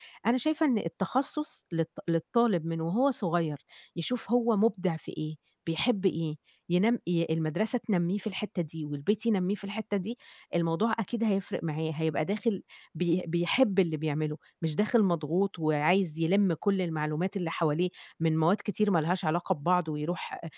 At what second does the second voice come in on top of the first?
none

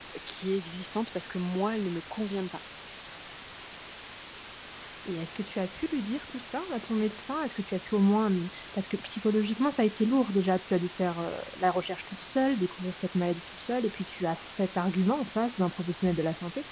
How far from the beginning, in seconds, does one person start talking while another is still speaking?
none

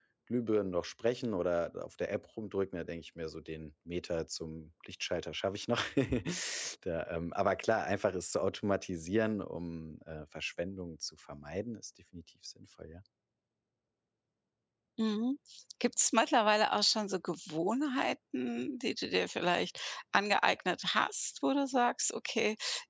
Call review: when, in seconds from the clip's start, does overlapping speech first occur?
none

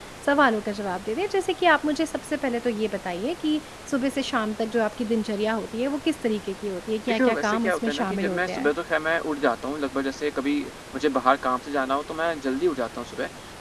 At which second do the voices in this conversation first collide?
7.1 s

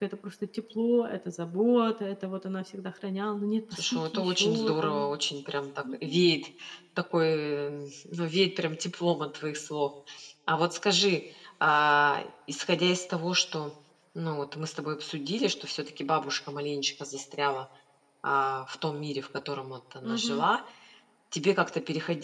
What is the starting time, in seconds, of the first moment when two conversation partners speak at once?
3.7 s

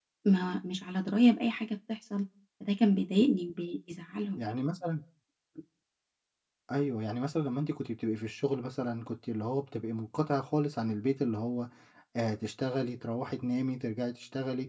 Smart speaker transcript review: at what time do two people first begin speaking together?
none

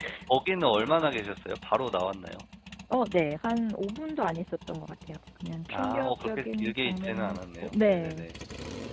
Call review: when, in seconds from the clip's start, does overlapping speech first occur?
5.7 s

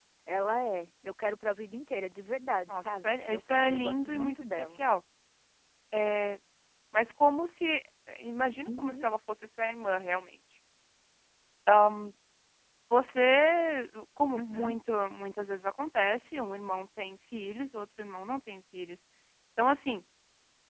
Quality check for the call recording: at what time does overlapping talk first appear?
2.7 s

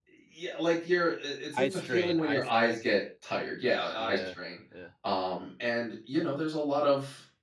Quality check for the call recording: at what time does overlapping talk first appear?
1.5 s

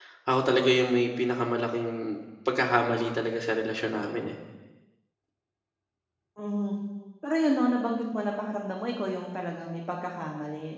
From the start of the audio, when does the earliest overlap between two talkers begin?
none

